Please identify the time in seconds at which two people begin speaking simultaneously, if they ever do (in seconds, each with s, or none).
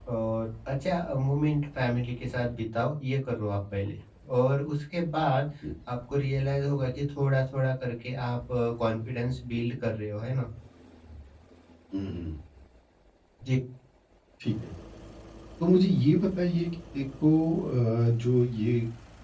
none